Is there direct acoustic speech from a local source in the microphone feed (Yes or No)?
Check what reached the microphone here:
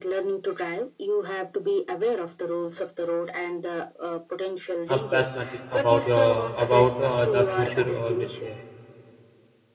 Yes